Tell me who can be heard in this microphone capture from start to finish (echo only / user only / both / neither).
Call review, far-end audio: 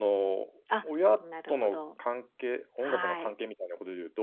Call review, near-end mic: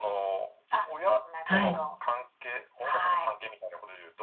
both